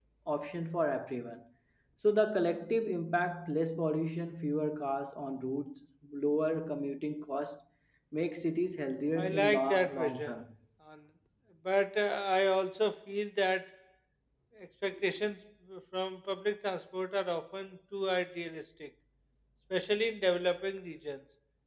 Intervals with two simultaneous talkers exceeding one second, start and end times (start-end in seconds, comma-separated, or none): 9.2-10.4